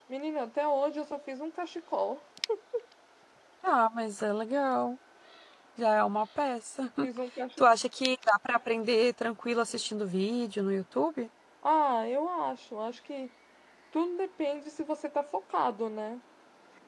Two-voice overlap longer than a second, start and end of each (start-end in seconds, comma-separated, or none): none